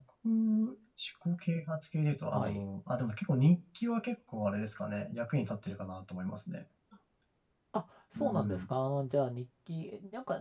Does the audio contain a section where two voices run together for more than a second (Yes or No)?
No